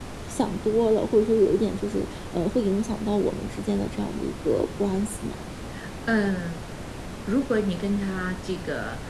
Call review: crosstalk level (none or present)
none